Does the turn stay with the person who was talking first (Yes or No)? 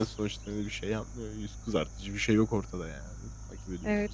No